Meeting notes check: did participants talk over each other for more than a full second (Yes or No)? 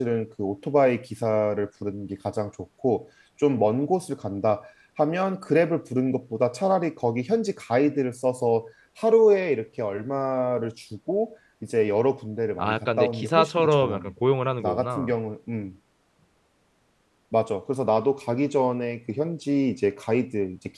Yes